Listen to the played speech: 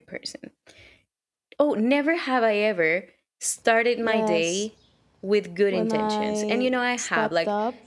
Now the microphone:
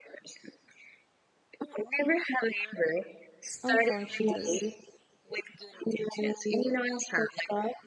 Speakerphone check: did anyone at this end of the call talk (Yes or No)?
Yes